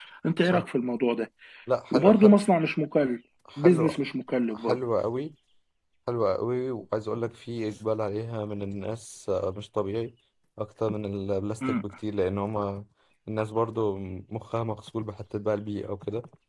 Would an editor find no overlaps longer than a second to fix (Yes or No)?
Yes